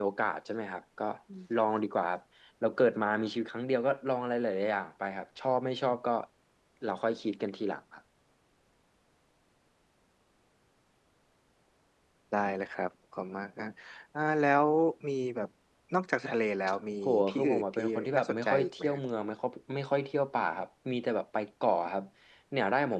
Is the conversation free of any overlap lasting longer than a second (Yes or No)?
No